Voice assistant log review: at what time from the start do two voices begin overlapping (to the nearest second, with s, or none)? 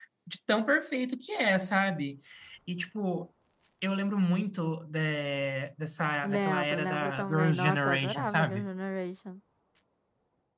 6 s